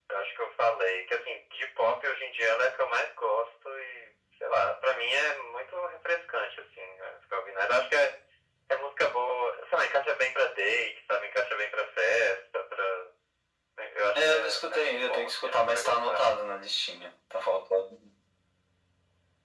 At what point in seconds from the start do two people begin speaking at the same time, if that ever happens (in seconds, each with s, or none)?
14.1 s